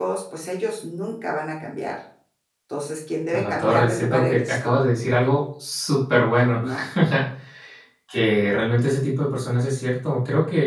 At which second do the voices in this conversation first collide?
3.3 s

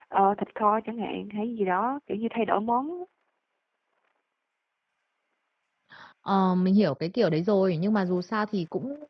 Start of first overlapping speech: none

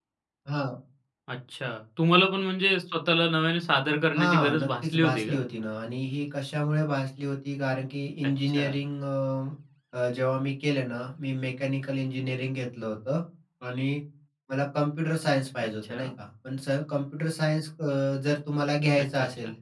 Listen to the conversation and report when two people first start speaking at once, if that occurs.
4.2 s

